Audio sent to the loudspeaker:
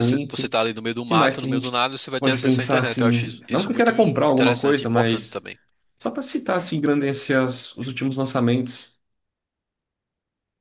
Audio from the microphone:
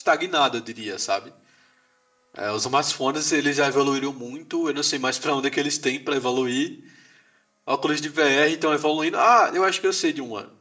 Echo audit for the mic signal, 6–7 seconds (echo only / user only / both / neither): user only